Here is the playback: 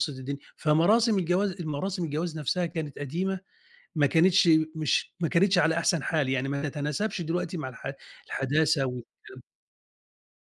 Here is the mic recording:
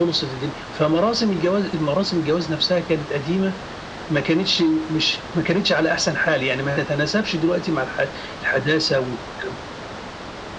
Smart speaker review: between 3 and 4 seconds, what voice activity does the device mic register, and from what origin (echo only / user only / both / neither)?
echo only